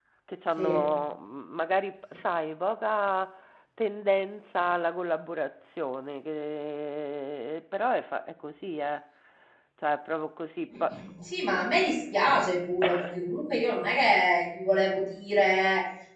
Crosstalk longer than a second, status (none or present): none